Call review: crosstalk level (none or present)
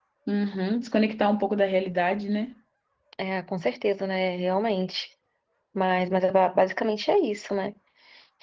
none